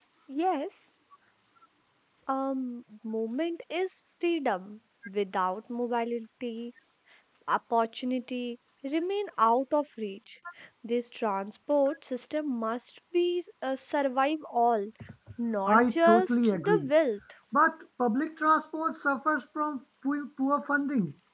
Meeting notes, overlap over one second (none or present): present